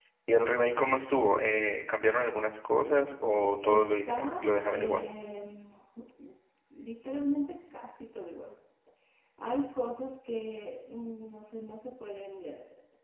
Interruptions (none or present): present